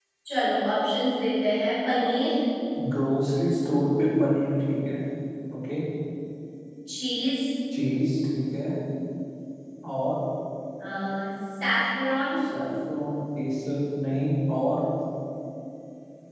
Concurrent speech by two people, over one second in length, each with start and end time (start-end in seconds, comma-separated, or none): none